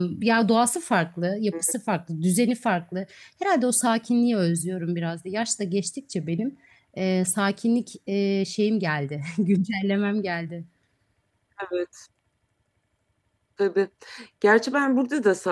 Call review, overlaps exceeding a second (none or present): none